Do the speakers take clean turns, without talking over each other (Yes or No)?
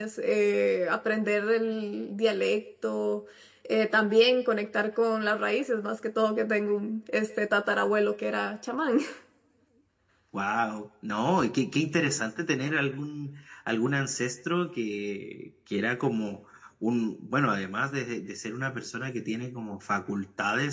Yes